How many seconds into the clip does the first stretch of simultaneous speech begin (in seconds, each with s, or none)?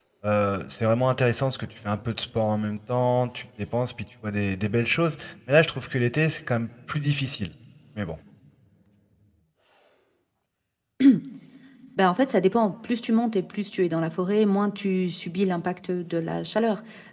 none